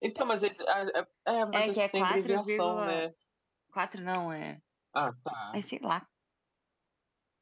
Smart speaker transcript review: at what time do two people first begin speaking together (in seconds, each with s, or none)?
1.5 s